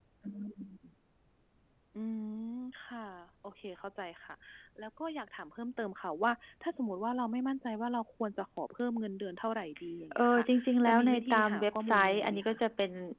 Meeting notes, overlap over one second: present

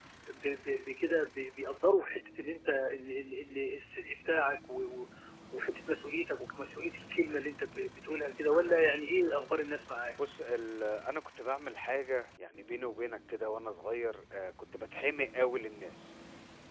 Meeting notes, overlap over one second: none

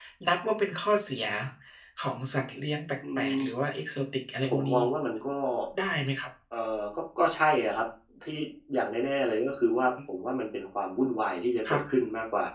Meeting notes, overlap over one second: none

